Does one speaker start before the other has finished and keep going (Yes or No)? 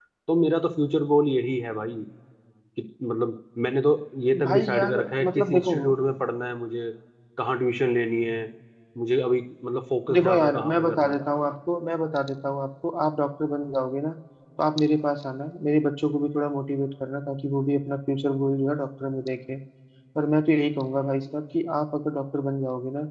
Yes